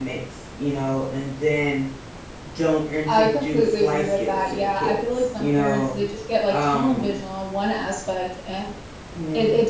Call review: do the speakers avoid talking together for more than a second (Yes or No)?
No